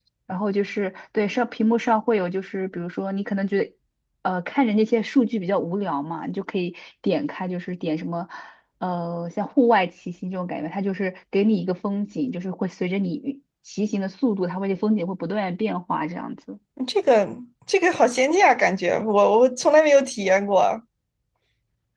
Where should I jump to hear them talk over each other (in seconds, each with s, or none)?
none